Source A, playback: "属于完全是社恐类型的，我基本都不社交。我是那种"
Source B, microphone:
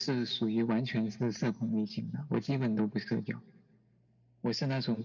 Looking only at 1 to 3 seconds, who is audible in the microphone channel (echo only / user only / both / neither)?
echo only